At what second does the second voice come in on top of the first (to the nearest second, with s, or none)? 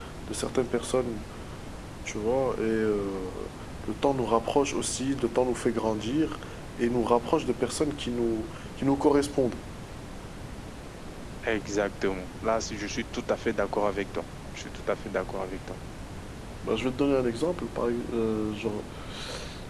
none